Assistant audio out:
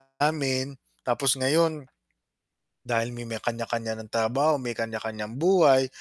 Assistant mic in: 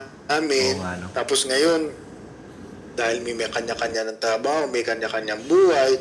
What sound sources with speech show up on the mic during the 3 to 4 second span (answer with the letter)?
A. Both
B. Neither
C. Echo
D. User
C